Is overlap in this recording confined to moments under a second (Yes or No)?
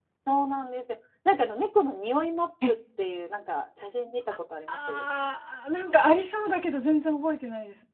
Yes